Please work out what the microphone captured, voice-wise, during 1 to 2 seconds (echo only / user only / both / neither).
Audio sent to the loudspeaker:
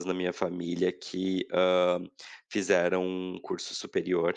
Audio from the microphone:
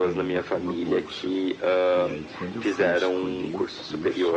both